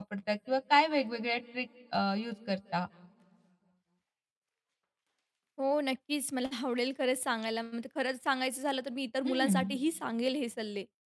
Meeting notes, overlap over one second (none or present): none